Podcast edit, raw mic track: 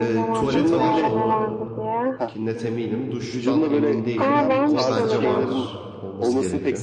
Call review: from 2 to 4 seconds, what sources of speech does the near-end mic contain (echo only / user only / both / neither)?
both